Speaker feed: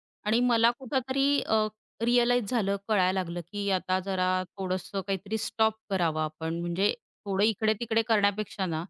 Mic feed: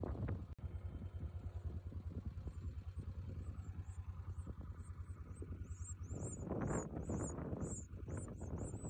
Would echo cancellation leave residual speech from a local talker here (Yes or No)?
No